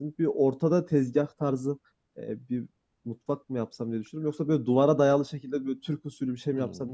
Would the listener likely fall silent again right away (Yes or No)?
No